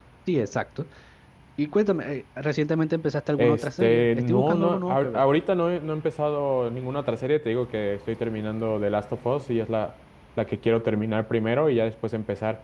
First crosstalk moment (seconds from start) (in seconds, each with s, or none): 3.4 s